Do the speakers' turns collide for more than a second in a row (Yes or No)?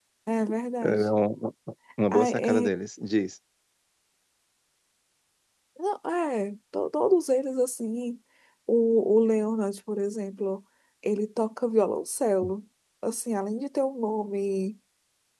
No